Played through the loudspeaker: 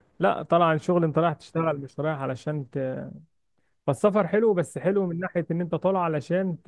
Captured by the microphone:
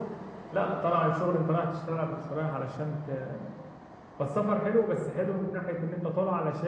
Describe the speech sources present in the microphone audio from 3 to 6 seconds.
echo only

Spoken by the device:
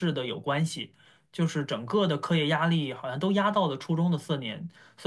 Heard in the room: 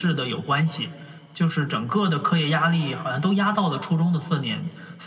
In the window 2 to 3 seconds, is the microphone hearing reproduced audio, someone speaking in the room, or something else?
echo only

